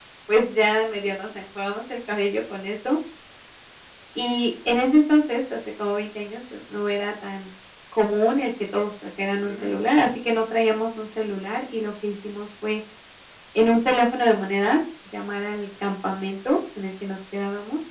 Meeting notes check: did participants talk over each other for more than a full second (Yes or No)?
No